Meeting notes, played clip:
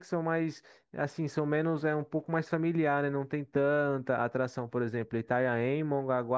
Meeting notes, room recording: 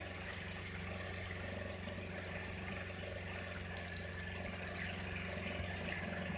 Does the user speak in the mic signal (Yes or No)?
No